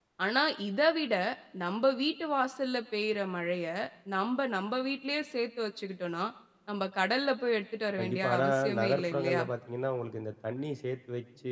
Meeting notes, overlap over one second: present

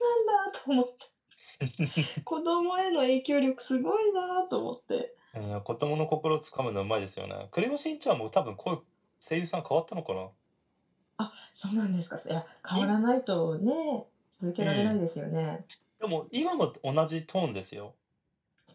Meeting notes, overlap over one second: none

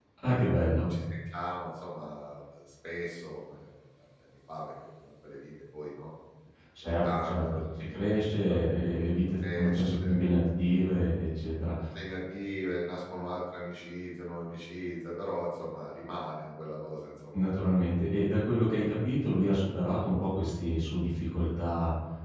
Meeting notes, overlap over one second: present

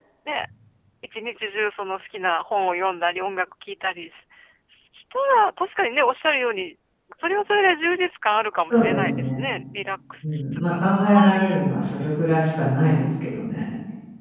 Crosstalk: present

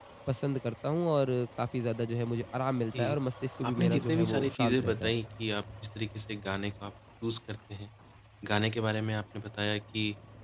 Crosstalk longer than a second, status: present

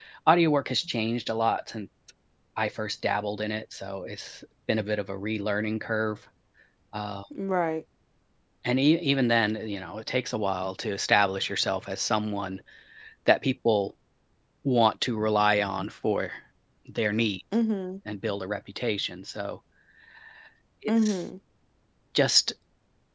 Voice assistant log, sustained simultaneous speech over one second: none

